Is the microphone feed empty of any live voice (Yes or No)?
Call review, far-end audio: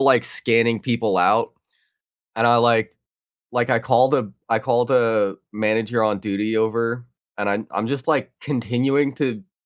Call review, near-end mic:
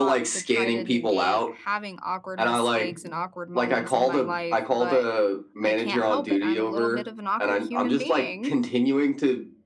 No